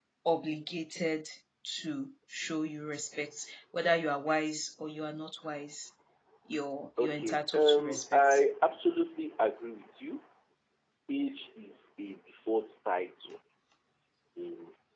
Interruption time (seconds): 7 s

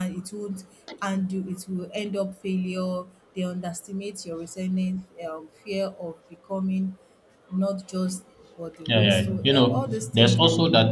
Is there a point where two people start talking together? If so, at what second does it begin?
9 s

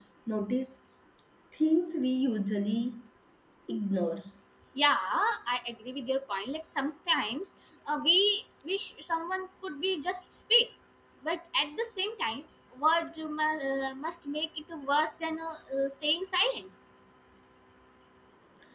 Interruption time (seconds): none

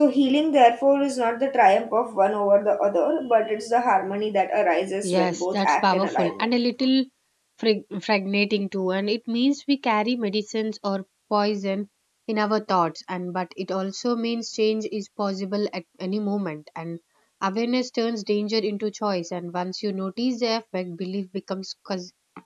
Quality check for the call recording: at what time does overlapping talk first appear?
5 s

